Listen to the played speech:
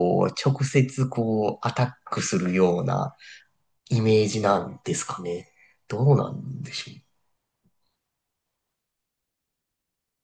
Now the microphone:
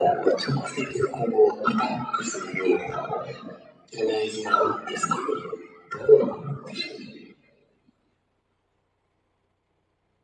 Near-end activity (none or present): none